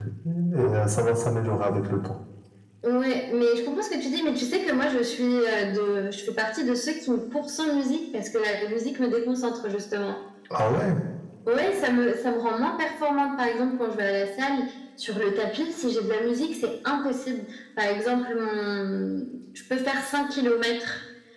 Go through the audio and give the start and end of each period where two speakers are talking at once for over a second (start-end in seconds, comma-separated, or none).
none